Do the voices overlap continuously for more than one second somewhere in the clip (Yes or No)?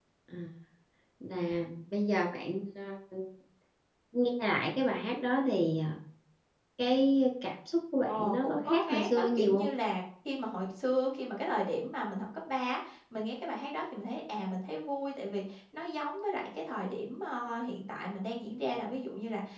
Yes